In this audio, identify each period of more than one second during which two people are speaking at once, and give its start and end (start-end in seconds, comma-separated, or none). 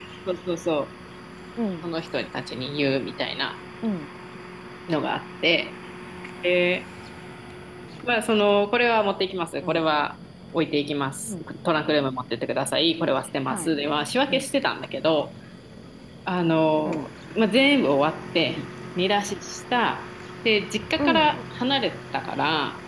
none